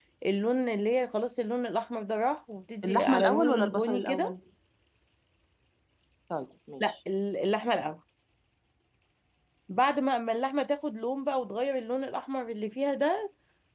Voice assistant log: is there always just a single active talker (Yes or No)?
No